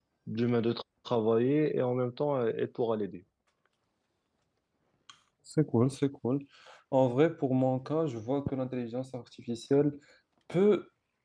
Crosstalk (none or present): none